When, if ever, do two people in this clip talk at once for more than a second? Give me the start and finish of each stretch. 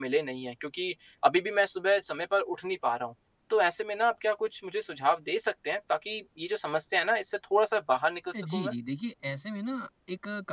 none

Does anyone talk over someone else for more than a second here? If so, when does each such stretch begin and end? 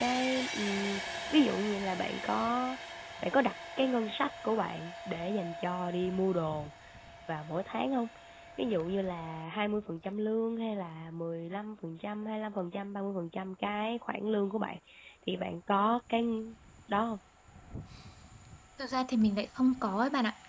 none

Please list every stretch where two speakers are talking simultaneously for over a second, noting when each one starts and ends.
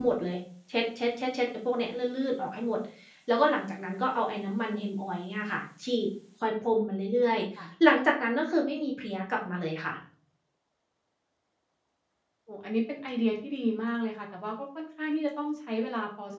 none

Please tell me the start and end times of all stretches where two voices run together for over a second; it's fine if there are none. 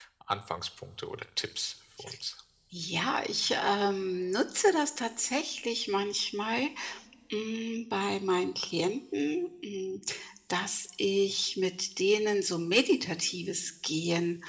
none

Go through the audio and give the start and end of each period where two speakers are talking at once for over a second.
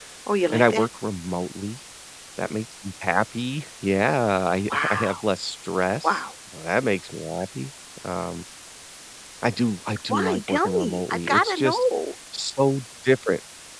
10.1-11.8

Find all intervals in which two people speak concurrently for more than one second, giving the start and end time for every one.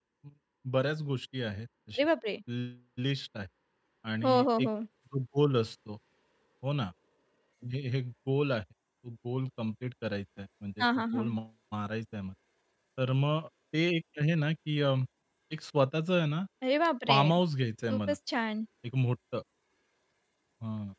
none

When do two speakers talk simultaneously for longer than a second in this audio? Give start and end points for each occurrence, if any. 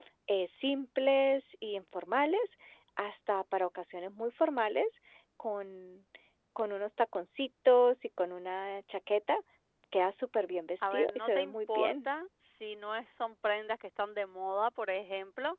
10.8-12.1

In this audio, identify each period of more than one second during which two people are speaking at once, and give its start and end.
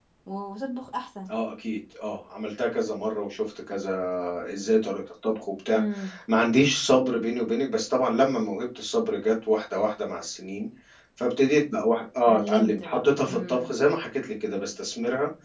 12.3-13.8

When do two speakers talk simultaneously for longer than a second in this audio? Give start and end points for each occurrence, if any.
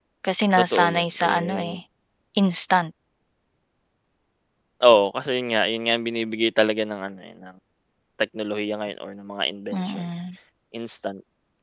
0.6-1.8

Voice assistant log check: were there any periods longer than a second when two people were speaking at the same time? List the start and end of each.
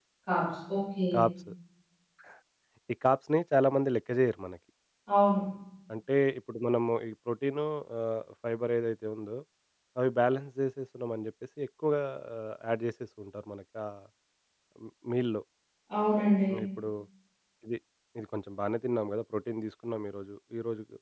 none

